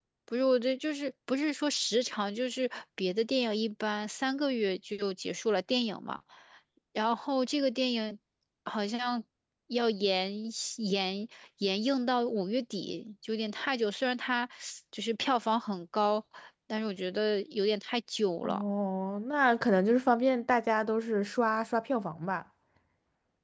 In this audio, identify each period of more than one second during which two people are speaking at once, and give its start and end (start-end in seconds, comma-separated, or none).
none